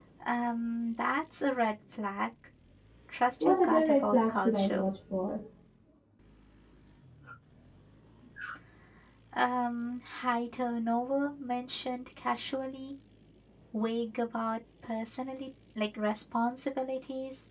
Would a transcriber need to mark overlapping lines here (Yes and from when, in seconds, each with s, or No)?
Yes, from 3.4 s